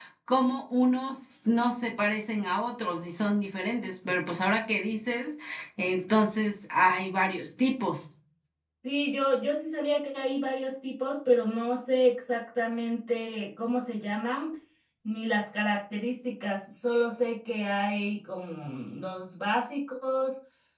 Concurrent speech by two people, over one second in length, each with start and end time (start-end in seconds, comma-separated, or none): none